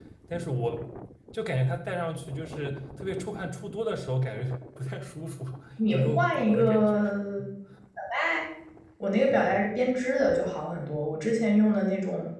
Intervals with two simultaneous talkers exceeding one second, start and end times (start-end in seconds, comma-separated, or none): 5.9-7.1